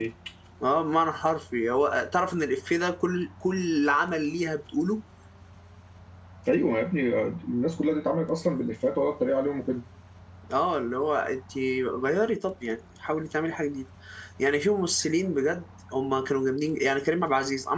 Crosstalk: none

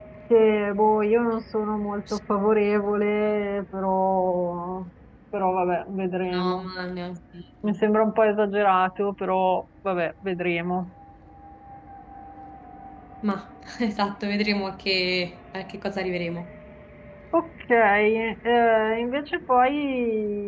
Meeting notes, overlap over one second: none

